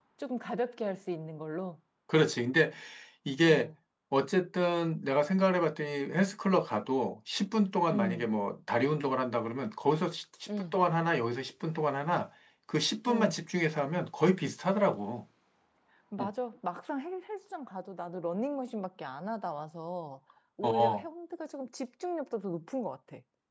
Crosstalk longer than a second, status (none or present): none